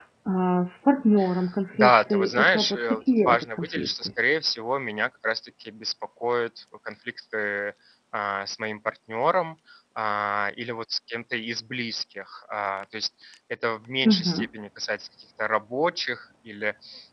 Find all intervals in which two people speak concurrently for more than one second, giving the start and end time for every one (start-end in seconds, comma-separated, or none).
1.8-4.1